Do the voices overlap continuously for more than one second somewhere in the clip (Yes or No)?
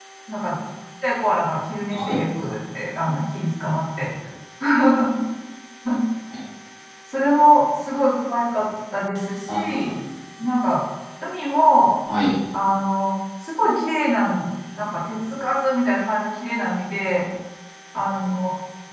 No